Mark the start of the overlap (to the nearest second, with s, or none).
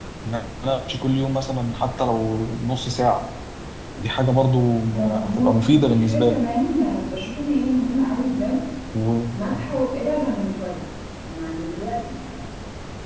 5 s